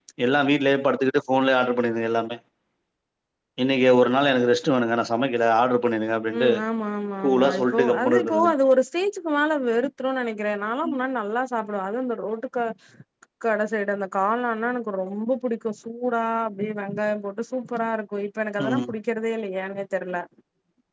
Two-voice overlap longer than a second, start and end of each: 7.2-8.5

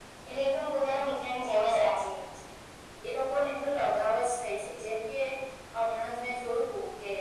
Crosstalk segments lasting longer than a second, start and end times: none

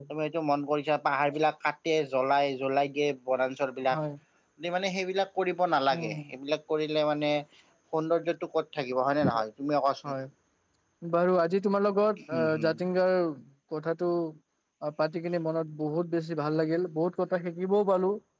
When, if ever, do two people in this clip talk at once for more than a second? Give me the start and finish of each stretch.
none

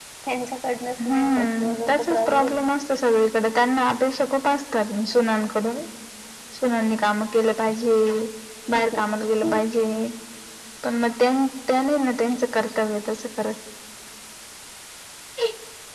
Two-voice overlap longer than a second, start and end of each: 1.0-2.6

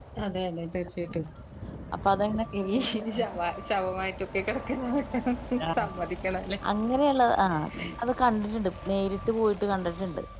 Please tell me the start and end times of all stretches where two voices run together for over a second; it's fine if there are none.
none

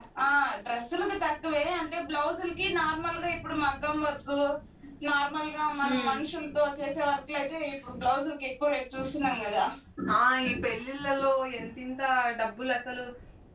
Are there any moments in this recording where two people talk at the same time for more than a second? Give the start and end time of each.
none

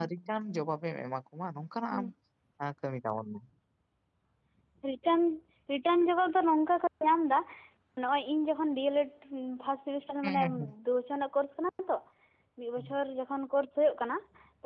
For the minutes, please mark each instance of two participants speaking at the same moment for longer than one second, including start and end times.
none

